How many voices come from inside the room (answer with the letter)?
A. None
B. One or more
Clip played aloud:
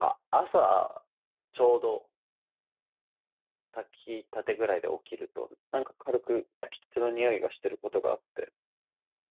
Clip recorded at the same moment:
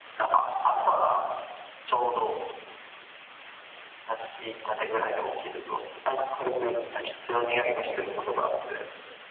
A